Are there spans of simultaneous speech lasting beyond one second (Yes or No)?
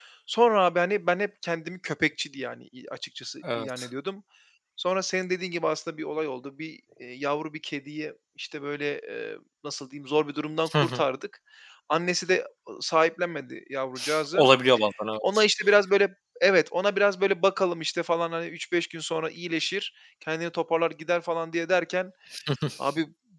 No